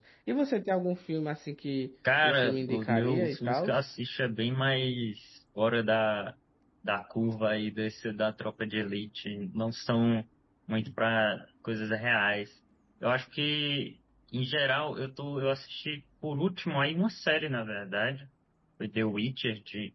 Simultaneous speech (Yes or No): Yes